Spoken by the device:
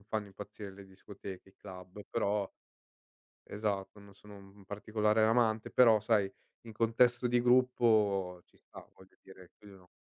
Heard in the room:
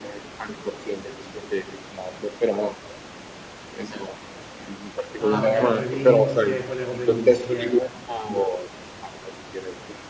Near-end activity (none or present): present